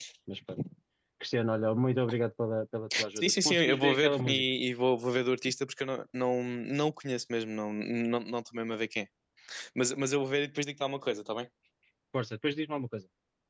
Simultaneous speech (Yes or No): Yes